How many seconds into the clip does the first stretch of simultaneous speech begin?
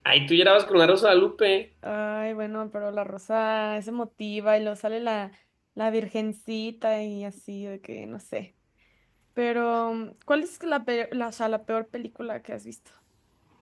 none

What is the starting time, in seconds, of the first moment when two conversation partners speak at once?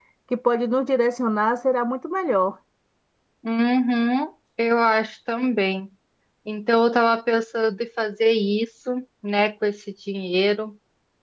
none

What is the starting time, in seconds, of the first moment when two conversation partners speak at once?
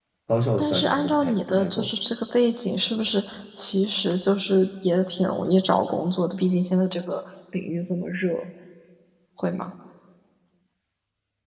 0.6 s

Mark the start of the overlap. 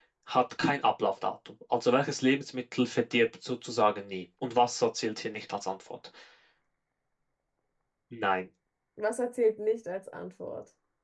none

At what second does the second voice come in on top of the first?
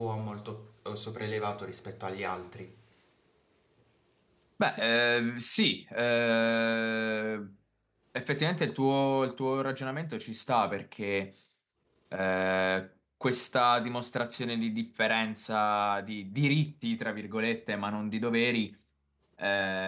none

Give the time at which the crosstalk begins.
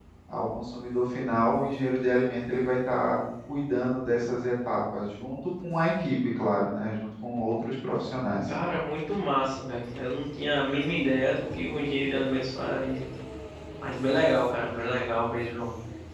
none

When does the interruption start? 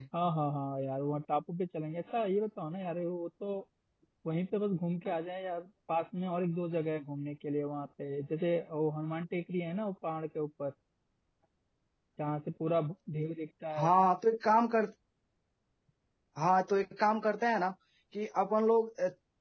none

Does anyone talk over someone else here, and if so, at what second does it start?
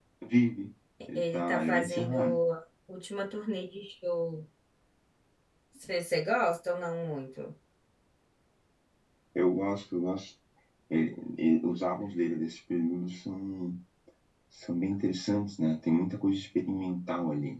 1.2 s

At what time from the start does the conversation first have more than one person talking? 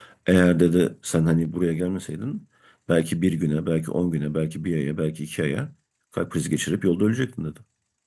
none

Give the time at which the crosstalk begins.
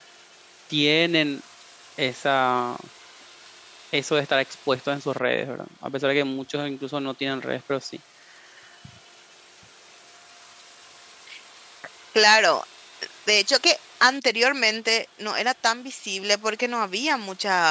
none

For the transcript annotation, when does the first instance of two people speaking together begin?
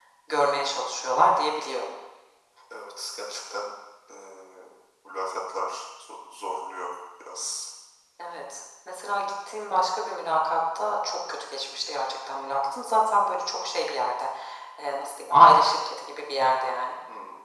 none

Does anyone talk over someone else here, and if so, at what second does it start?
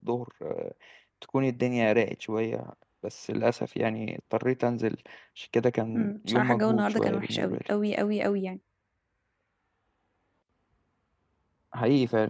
5.9 s

